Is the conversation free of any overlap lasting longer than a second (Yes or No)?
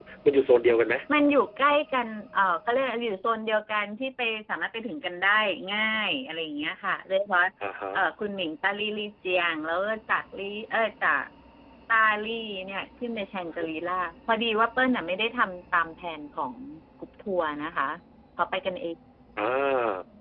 Yes